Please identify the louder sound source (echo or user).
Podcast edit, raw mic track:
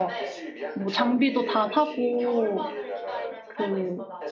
user